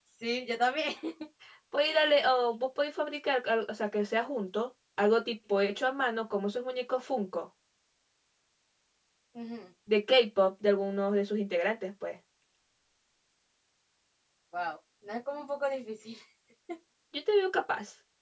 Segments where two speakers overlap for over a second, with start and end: none

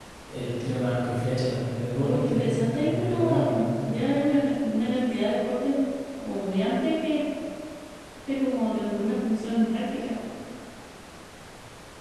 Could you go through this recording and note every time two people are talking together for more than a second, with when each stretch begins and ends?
2.0-3.7

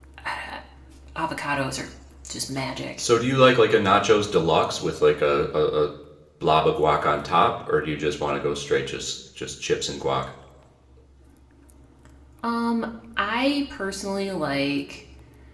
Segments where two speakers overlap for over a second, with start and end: none

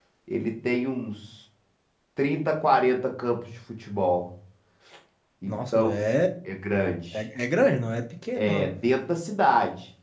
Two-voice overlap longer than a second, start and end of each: none

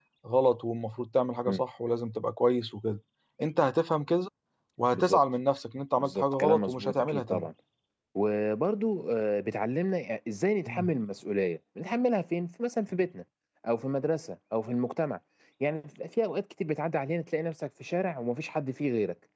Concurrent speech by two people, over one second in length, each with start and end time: 6.0-7.5

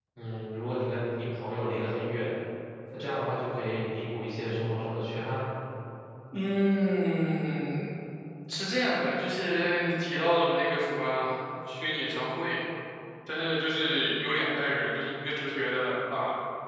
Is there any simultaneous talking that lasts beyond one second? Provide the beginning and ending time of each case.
none

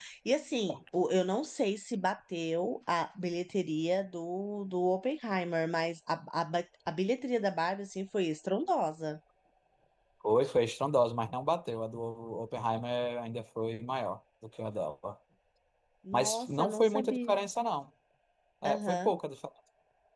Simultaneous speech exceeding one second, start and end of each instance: 16.1-17.3

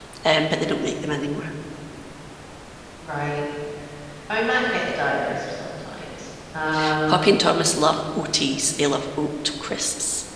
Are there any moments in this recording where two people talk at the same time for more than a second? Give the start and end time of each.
none

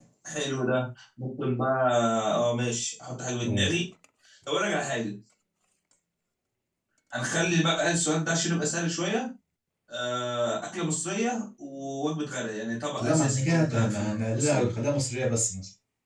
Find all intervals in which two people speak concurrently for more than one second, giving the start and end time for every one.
13.0-14.7

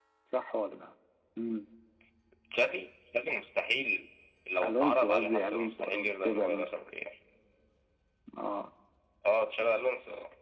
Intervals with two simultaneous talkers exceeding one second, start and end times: 4.6-6.8

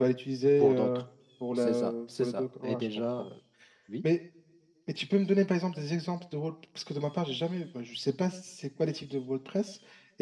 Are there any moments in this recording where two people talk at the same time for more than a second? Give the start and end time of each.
1.6-3.3

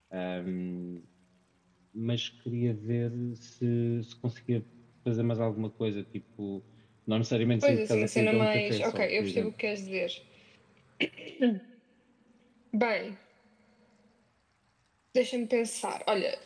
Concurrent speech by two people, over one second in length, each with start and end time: 7.6-9.5

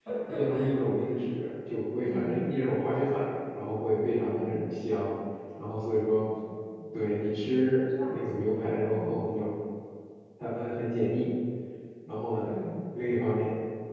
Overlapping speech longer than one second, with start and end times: none

